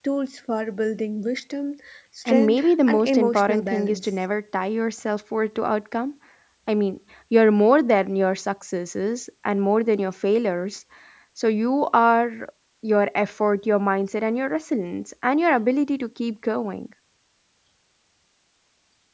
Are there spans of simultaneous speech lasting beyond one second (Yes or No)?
Yes